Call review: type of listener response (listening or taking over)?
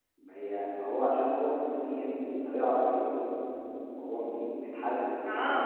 taking over